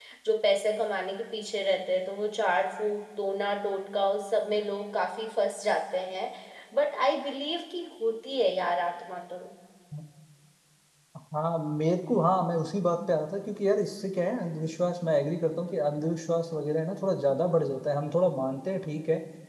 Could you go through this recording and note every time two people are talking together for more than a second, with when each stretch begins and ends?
none

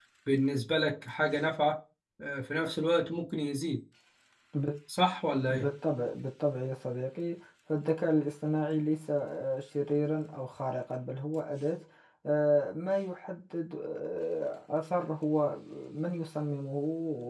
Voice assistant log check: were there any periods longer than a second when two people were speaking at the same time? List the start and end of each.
none

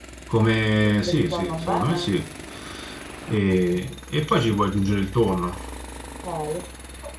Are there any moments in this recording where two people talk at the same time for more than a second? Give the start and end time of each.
0.8-2.1

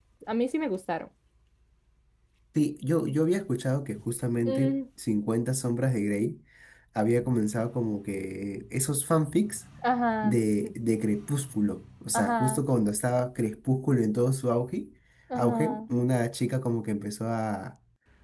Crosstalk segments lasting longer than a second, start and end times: none

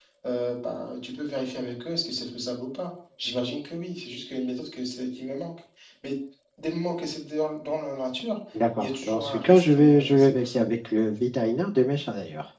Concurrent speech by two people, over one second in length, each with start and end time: 8.8-10.6

